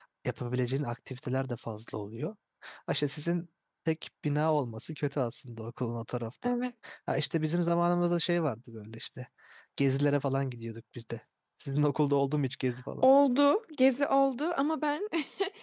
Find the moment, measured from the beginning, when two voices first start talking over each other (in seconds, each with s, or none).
none